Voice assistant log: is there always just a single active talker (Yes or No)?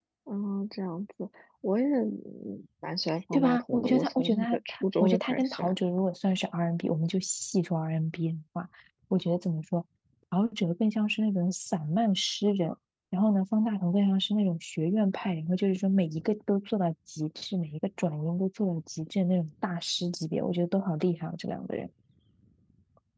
No